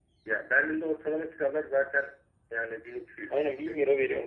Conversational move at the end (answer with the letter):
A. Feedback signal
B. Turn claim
B